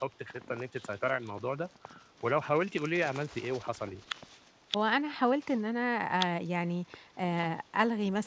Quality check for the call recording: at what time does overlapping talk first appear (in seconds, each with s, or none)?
none